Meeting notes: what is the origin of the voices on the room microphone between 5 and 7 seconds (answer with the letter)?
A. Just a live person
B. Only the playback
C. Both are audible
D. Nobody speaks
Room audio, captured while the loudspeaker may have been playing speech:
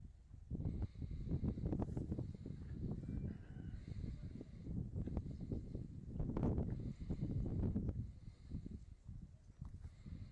D